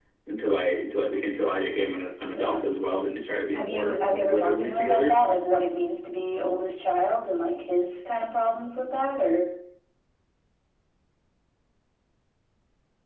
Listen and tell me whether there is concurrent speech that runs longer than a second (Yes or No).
Yes